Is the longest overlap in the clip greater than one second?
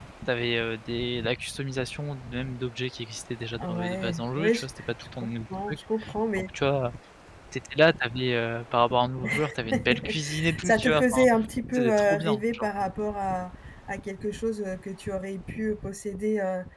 Yes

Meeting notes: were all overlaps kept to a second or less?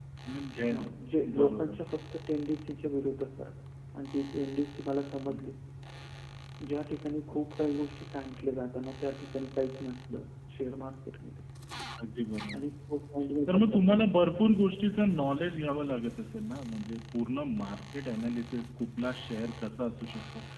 Yes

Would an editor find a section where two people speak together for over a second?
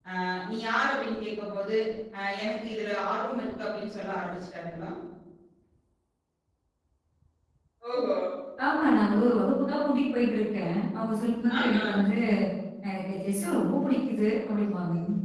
No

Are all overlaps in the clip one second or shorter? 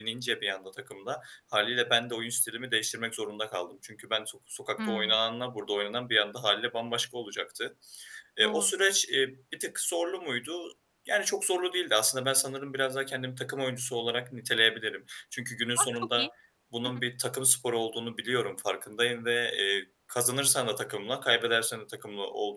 Yes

